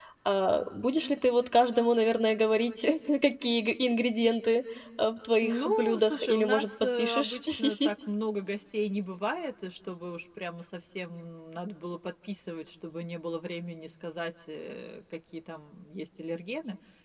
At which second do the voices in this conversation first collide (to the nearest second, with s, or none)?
5 s